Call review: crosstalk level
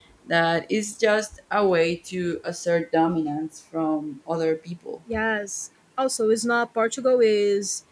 none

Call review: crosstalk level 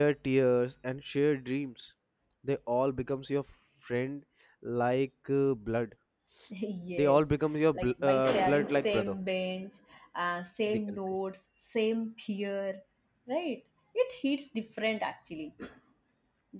present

